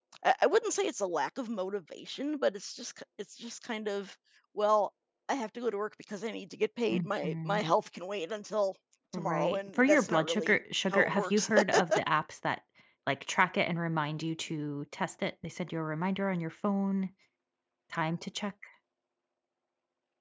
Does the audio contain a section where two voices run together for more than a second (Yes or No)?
Yes